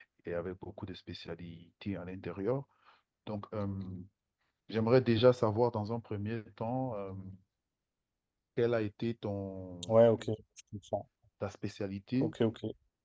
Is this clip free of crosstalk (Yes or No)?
Yes